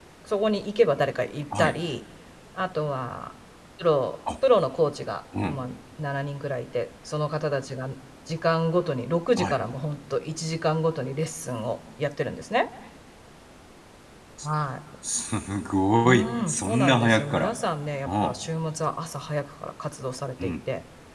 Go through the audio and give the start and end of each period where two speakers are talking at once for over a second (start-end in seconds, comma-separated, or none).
16.0-17.5